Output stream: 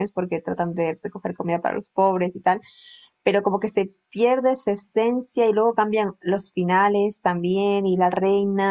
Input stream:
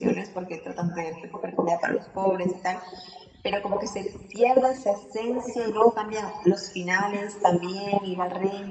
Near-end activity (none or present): none